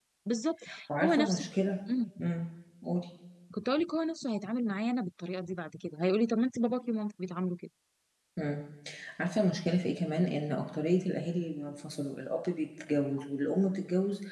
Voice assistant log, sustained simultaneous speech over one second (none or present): none